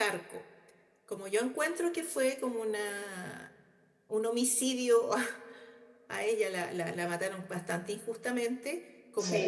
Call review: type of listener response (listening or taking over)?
listening